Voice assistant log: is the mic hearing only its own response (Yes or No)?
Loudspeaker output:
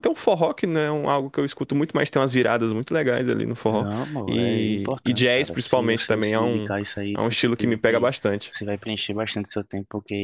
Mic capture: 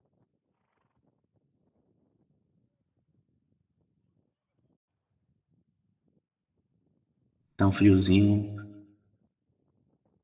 No